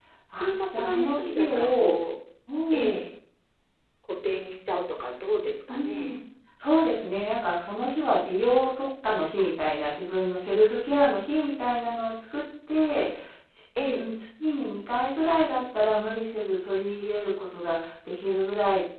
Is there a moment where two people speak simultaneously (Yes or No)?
Yes